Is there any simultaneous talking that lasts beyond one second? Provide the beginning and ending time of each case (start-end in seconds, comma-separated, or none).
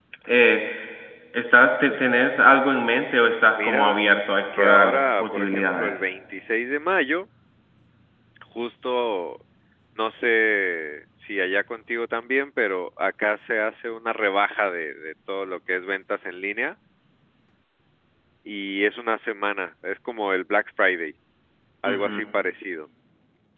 4.6-6.0